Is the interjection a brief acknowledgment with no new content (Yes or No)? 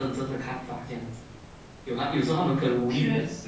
Yes